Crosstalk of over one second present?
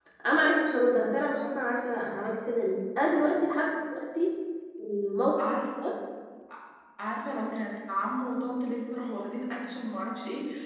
No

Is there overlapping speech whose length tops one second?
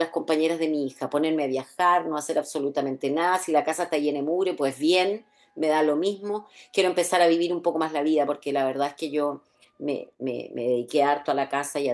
No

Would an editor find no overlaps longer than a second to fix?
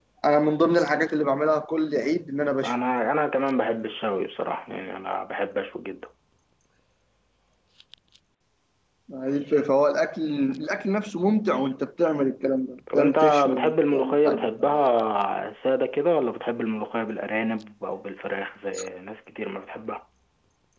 No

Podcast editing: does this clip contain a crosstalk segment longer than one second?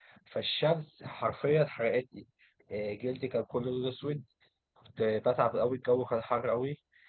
No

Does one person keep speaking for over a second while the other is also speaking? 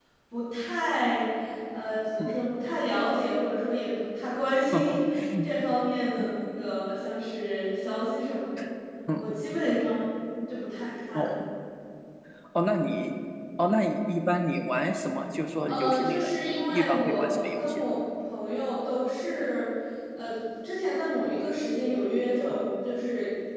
Yes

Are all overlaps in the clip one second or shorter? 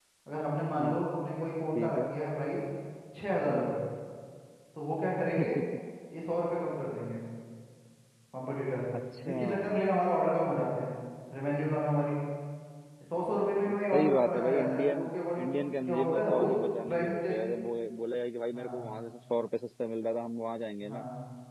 No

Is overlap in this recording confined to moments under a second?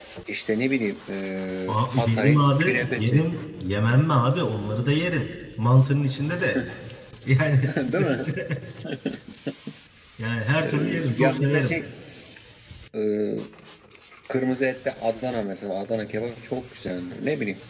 No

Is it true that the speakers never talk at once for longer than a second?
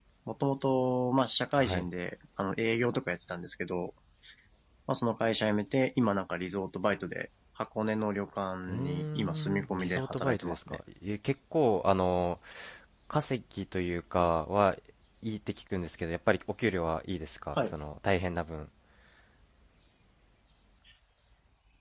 No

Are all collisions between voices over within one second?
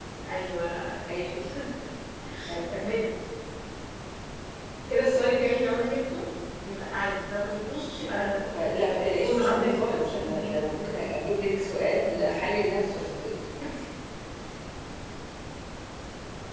No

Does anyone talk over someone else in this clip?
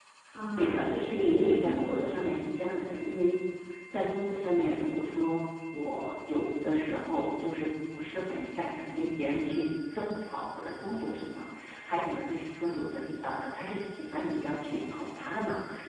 Yes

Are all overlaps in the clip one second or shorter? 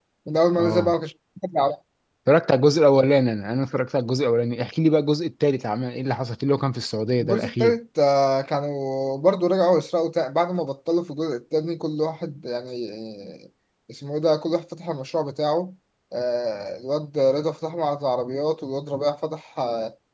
Yes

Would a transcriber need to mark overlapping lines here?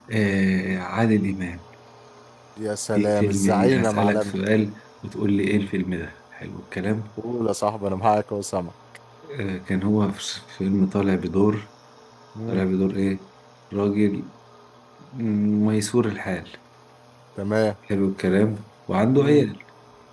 Yes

